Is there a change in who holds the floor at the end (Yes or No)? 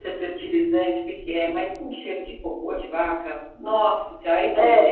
Yes